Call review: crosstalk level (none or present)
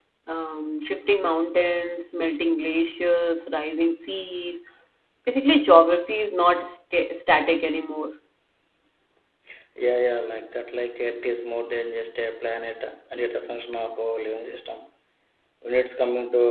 none